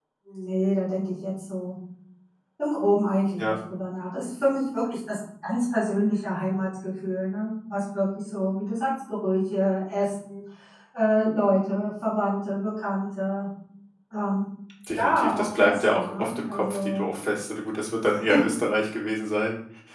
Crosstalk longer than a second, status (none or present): present